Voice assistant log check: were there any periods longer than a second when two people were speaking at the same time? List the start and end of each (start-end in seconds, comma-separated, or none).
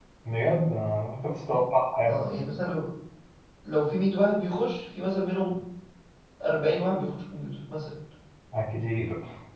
none